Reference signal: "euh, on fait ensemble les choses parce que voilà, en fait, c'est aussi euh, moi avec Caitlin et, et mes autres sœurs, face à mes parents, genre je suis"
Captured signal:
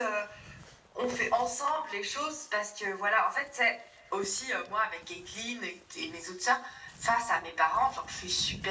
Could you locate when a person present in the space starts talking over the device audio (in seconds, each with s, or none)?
none